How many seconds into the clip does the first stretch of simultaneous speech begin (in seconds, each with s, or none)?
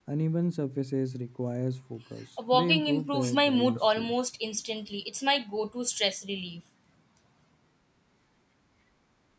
2.4 s